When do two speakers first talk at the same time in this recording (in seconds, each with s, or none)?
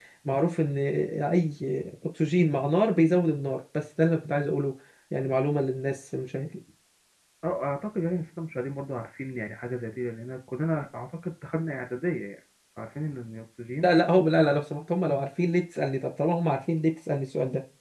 none